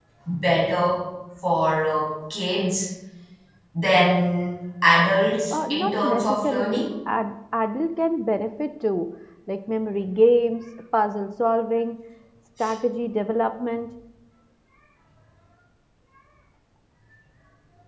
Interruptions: present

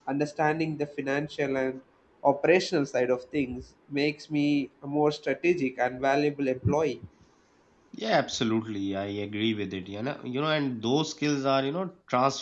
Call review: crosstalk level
none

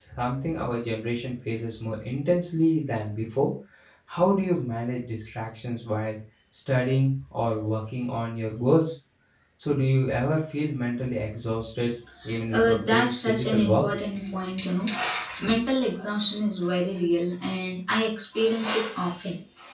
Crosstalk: present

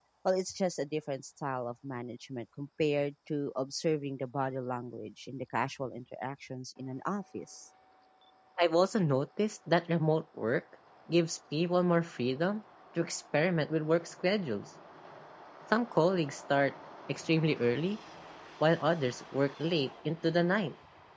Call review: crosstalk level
none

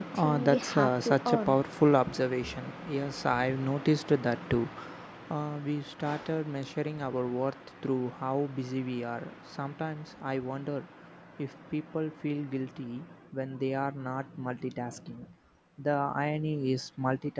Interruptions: present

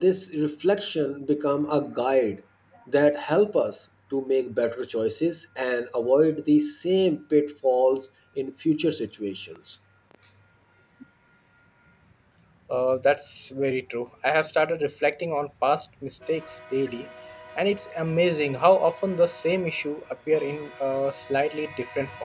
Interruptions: none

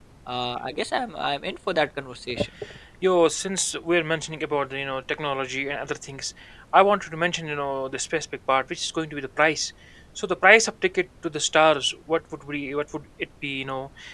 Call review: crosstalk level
none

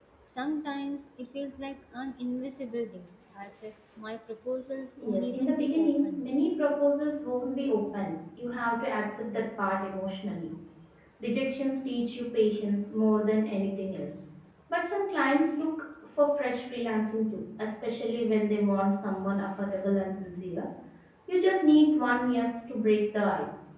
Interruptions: present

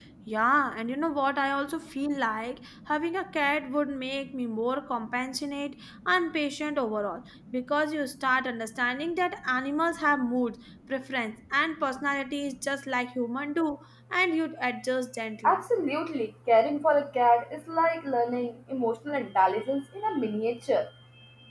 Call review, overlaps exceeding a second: none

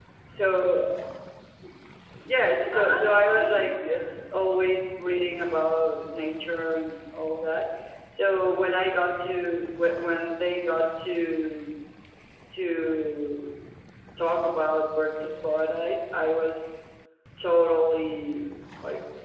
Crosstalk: present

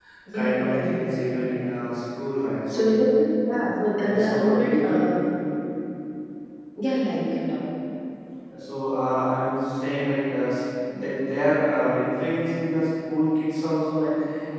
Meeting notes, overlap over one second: present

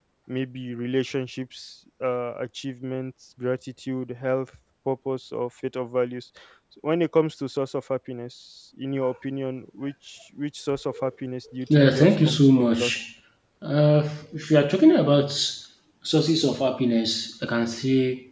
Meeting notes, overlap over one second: present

